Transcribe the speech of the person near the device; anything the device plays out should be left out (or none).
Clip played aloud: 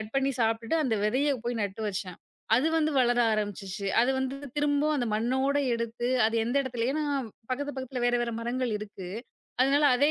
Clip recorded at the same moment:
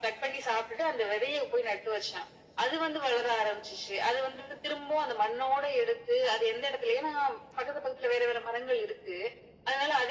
none